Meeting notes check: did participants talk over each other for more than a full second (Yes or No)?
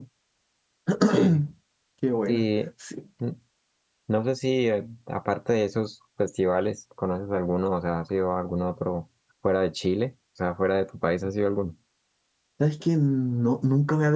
No